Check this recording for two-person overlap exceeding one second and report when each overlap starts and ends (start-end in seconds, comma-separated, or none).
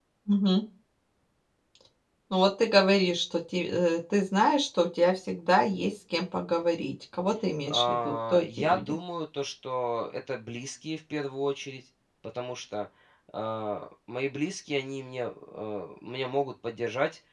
7.7-9.0